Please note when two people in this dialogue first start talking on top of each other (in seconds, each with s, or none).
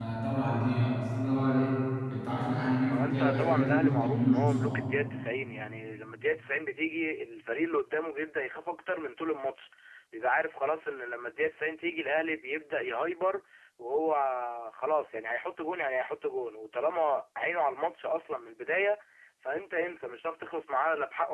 2.9 s